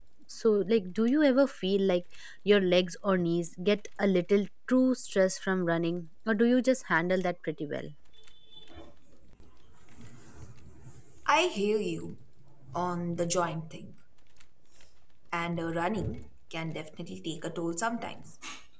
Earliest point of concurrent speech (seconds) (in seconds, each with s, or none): none